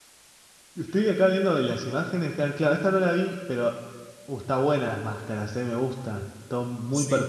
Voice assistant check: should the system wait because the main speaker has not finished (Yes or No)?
No